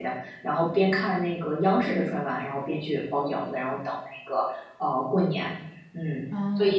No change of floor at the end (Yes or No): No